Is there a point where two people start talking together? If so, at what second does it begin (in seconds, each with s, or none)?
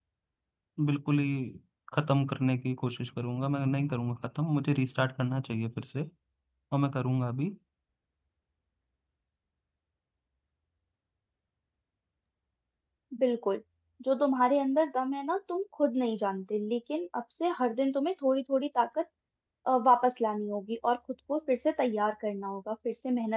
none